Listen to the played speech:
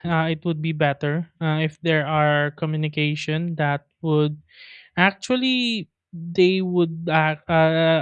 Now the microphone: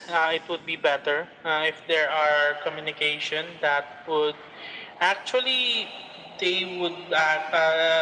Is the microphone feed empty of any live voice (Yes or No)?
Yes